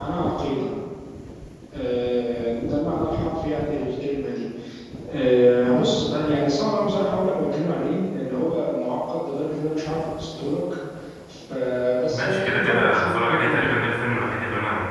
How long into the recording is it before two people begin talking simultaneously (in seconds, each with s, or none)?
12.1 s